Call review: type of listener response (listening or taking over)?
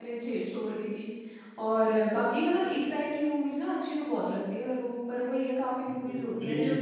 taking over